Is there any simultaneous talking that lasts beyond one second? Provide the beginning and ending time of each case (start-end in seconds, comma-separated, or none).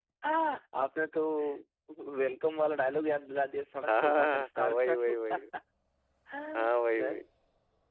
3.9-5.4